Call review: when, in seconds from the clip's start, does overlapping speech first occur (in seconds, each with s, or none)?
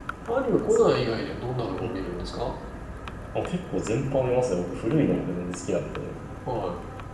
none